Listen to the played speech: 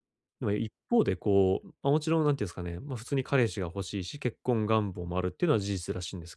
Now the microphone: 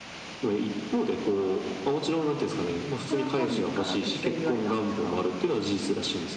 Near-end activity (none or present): present